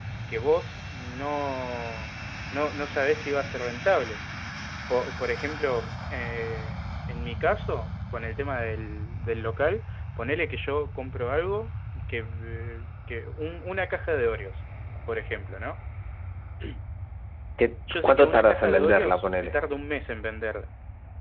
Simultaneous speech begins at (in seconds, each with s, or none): 18.0 s